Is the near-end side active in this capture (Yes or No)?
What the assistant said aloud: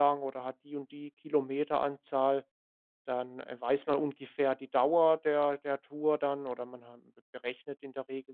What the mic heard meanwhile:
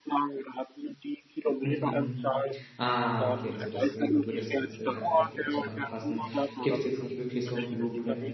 Yes